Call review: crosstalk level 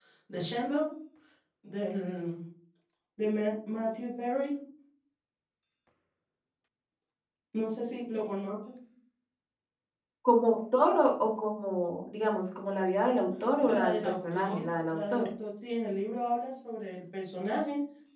present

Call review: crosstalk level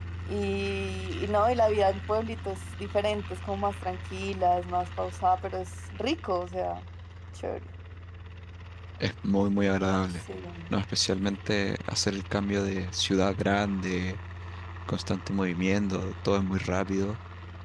none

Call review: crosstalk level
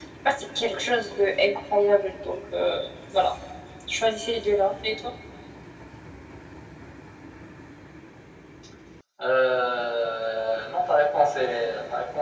none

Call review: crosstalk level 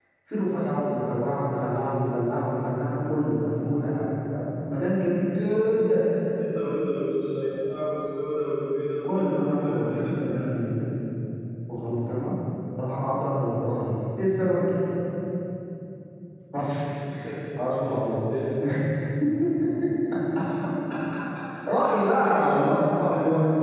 present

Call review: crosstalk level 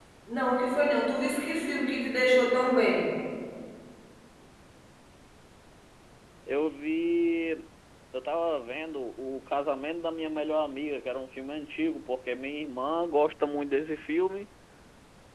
none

